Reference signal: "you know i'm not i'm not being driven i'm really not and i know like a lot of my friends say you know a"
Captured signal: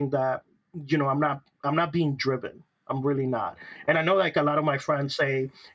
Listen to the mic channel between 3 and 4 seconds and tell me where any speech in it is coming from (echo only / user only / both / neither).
echo only